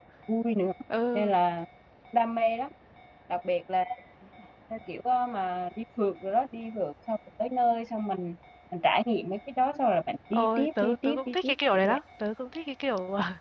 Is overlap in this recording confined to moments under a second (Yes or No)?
No